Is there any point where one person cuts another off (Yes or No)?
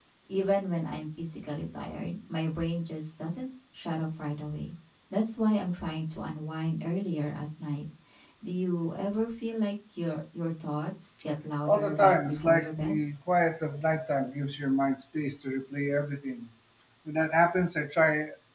Yes